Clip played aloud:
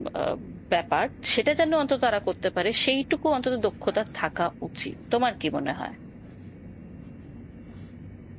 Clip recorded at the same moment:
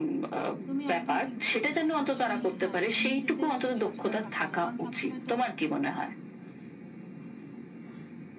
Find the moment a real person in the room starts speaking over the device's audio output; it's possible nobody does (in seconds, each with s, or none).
0.7 s